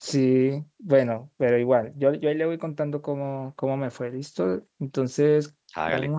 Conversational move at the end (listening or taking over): listening